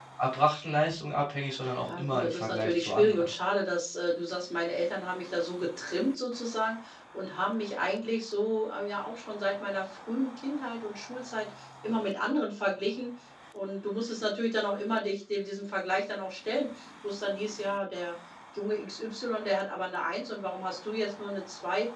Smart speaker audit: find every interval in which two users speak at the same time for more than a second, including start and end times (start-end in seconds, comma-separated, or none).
1.9-3.3